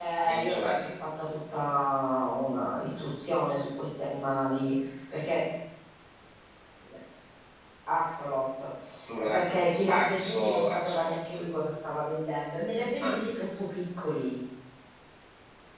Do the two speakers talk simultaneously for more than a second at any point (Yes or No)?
Yes